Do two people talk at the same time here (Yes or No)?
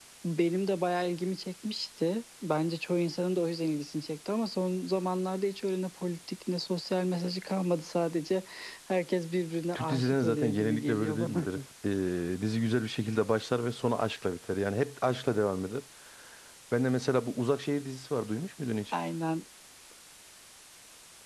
Yes